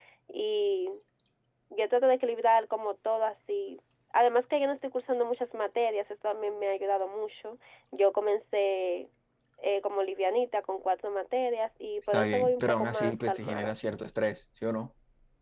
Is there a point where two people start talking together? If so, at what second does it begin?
12 s

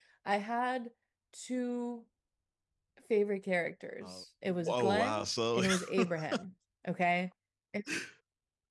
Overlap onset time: 4 s

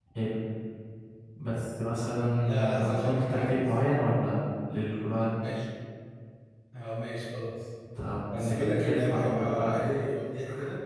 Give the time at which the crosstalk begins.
2 s

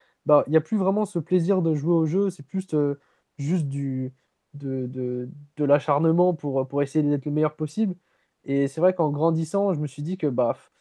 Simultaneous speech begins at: none

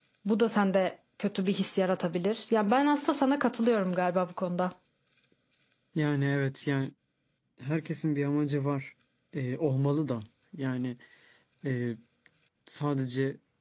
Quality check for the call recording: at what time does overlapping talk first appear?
none

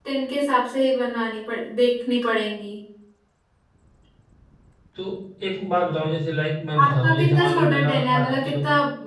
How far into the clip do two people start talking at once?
7 s

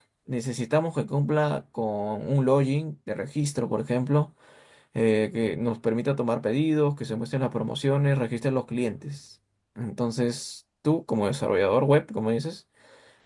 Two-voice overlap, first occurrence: none

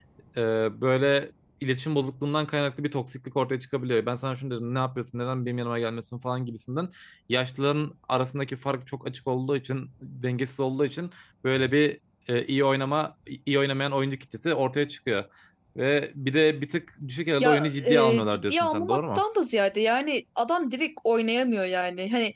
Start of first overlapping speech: 17 s

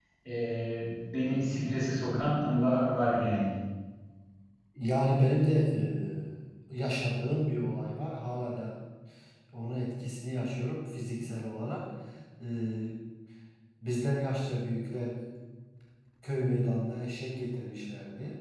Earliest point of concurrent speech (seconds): none

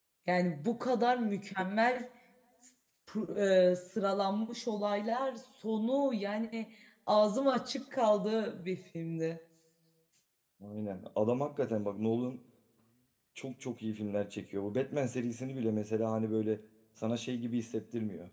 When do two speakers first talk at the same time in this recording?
none

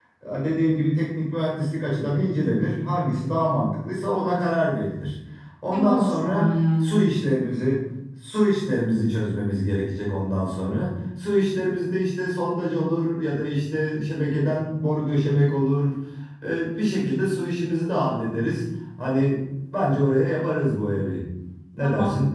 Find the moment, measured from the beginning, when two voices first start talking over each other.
6 s

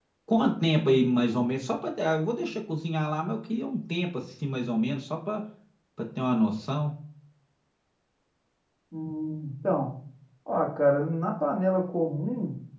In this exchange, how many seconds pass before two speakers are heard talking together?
none

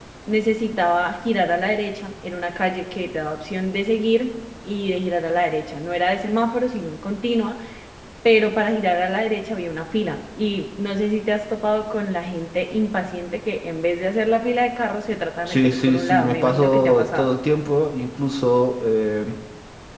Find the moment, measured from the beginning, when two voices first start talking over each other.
15 s

